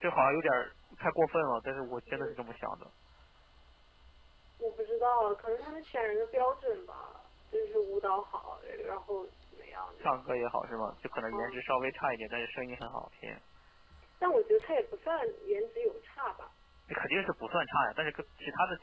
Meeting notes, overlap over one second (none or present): none